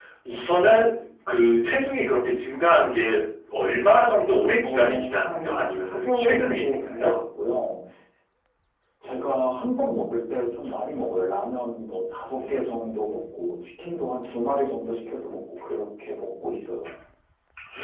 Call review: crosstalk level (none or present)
present